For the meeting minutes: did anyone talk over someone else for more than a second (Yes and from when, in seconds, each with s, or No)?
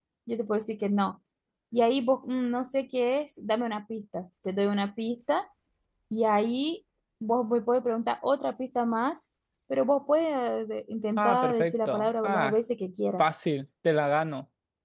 Yes, from 11.2 s